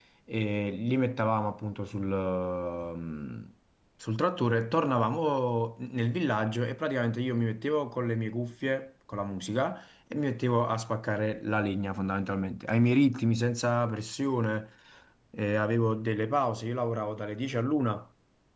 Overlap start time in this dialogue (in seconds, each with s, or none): none